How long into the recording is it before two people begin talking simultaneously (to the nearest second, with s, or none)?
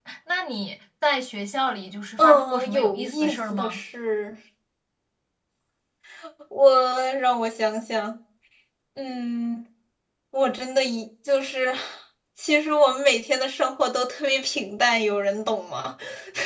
2 s